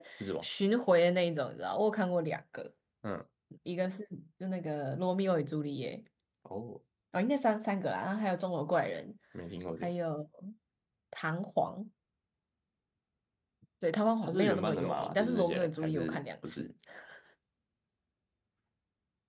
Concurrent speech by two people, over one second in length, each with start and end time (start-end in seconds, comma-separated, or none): 14.2-16.7